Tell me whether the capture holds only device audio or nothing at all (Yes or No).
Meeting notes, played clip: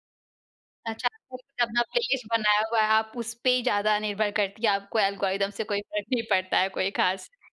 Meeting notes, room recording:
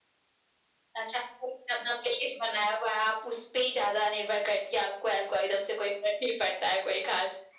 Yes